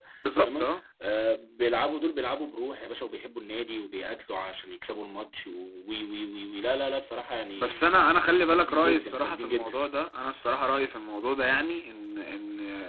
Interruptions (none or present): present